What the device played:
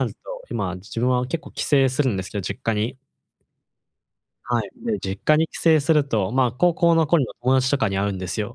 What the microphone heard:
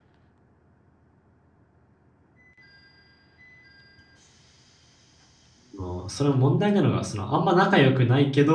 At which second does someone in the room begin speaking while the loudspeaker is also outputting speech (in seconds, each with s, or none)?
5.7 s